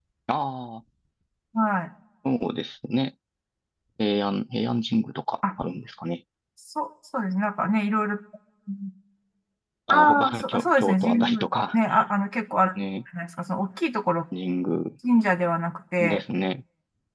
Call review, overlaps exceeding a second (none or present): present